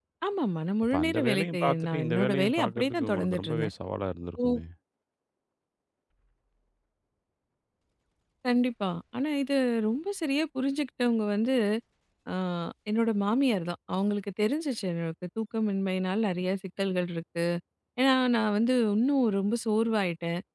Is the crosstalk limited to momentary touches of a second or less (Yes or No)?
No